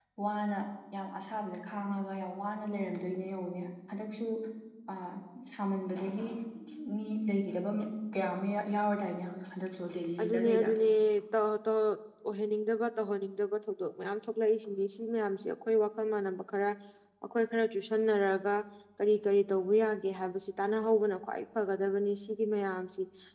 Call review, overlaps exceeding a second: none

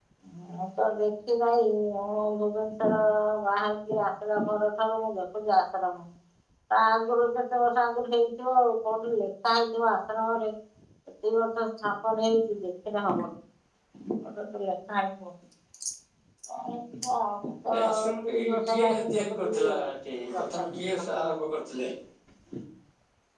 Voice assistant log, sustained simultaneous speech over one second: present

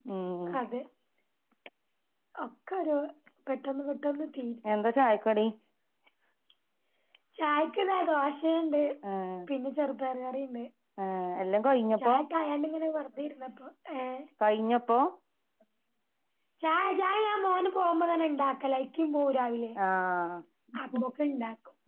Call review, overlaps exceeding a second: none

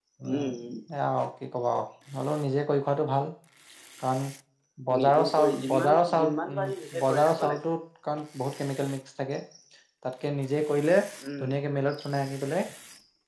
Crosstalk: present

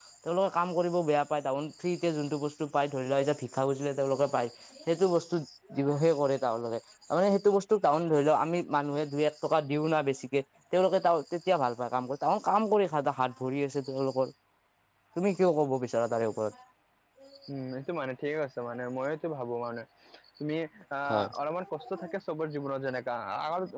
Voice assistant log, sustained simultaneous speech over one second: none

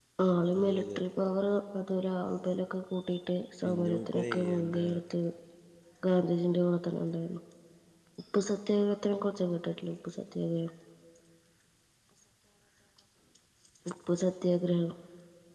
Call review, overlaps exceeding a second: present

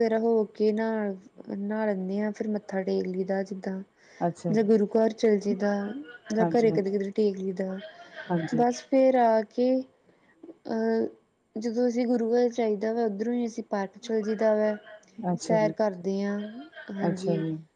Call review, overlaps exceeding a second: none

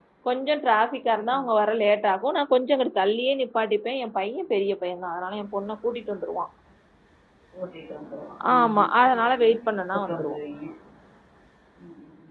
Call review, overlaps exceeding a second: present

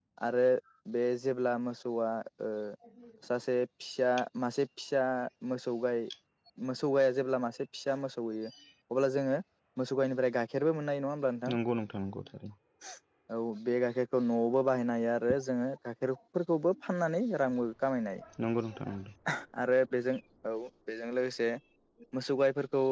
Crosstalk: none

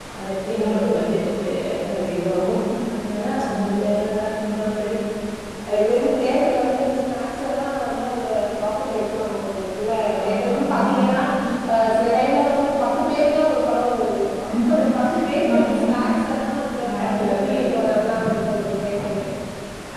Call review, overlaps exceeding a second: present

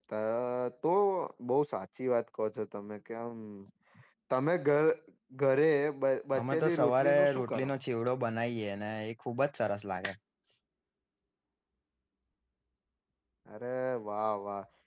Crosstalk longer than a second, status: present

